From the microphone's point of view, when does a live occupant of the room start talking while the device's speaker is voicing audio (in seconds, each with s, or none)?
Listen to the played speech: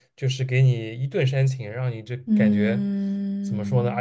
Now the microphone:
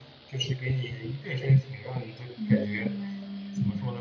none